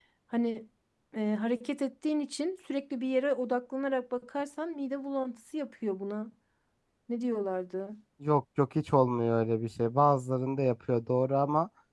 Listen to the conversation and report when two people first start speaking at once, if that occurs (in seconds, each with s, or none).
none